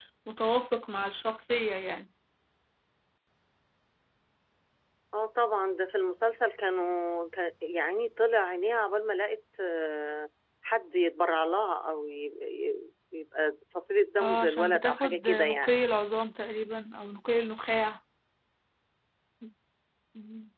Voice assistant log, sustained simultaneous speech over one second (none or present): present